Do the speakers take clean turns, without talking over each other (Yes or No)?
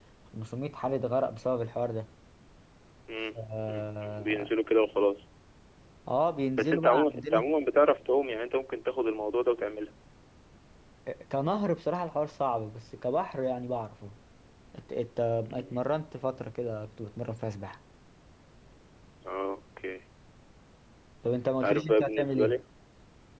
No